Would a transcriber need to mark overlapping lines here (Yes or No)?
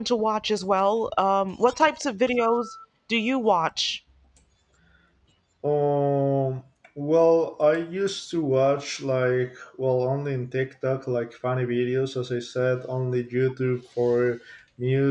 No